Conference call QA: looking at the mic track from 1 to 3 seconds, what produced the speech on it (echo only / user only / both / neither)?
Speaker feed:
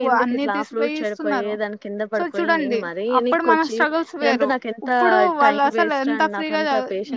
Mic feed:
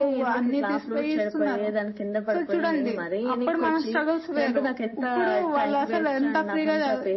echo only